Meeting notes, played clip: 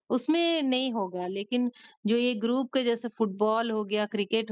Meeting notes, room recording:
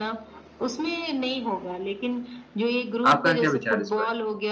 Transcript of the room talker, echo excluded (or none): आपका क्या विचार है इस पर?